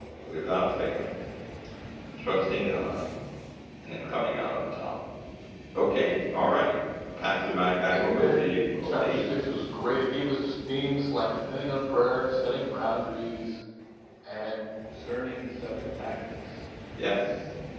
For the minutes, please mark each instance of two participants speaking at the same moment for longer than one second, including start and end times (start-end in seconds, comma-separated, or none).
7.9-9.2